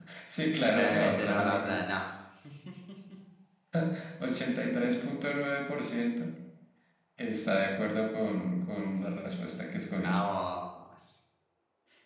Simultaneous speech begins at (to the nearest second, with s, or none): 1 s